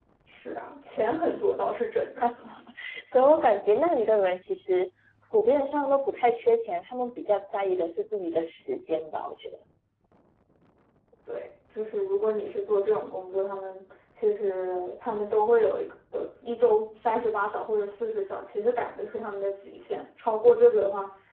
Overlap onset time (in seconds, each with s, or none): none